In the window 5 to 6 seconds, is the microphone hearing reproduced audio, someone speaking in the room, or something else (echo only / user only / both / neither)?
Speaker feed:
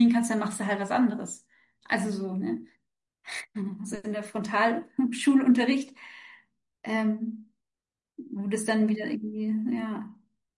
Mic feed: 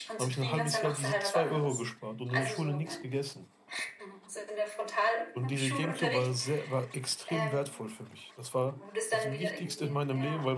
both